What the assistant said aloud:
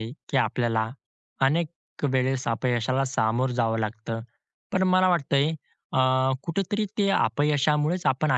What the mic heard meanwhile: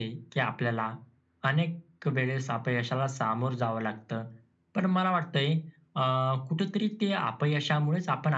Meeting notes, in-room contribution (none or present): none